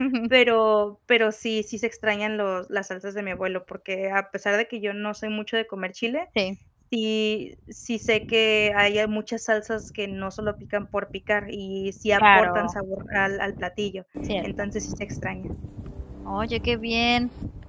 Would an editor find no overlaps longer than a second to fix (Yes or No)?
Yes